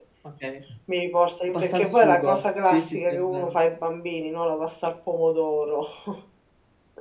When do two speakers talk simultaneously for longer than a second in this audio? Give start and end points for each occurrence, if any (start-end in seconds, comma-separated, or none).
1.5-3.5